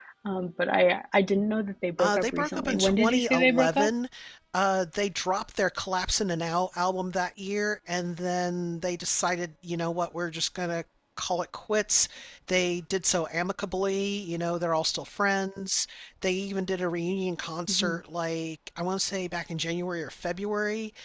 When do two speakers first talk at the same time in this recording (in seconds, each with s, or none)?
2.0 s